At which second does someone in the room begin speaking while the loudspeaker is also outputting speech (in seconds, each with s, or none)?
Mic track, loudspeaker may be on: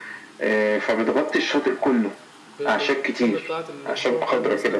2.6 s